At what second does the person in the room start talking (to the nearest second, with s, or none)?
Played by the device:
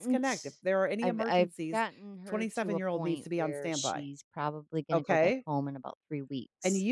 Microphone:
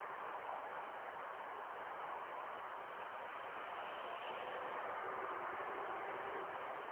none